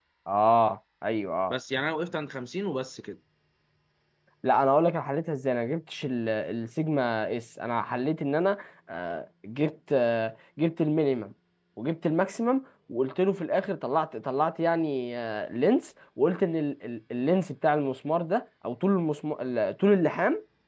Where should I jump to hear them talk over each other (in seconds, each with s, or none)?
none